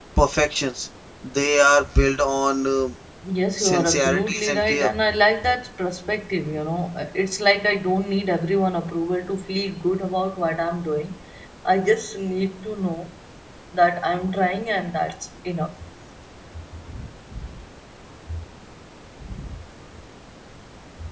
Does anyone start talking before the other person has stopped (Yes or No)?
Yes